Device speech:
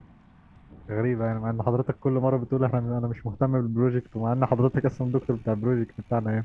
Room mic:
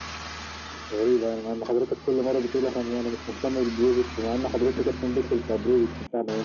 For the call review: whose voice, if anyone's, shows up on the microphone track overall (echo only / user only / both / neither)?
echo only